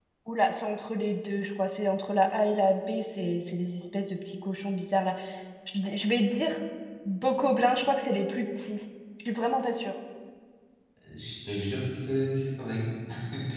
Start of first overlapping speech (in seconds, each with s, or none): none